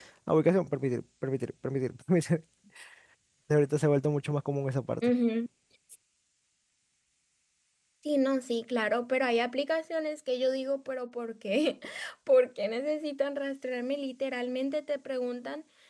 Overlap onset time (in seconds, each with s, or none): none